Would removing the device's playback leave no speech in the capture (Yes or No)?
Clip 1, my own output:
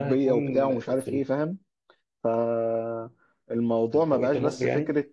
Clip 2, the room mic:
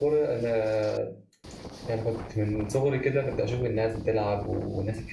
No